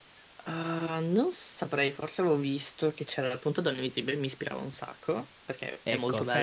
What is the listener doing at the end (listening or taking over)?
taking over